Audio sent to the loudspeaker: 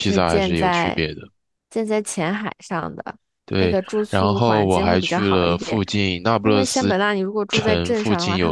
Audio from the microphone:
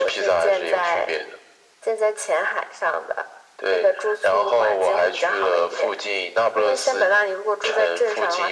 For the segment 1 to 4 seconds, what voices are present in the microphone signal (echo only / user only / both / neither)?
echo only